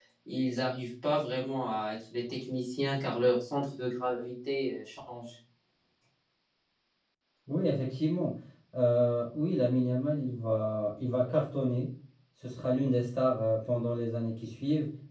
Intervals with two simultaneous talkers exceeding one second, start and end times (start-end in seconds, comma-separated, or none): none